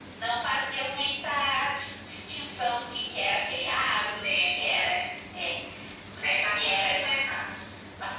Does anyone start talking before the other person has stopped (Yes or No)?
Yes